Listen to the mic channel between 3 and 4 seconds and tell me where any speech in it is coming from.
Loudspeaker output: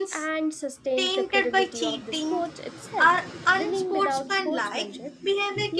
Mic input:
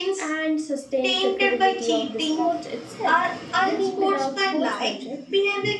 echo only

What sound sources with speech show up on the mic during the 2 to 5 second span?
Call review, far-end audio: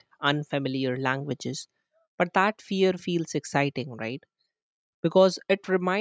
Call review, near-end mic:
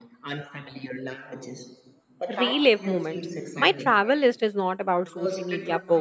both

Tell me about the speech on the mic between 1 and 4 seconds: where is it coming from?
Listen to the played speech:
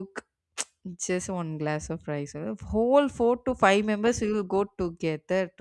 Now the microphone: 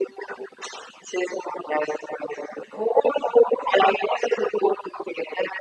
echo only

